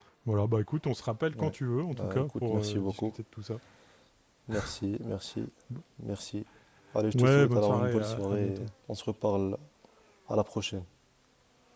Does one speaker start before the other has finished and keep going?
Yes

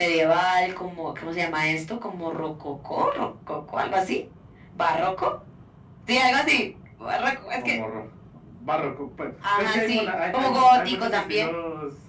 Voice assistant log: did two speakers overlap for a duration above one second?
Yes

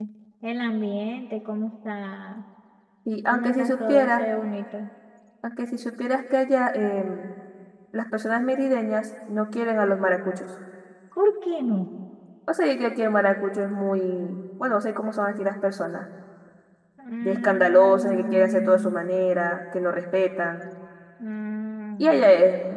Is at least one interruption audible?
Yes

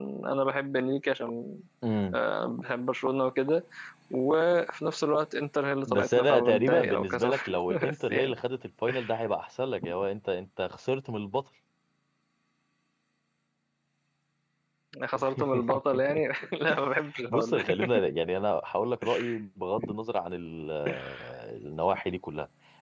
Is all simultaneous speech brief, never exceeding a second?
No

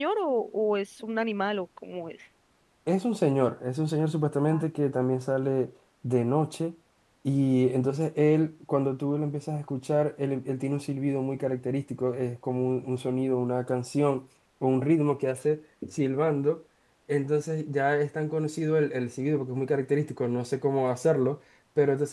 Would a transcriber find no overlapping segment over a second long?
Yes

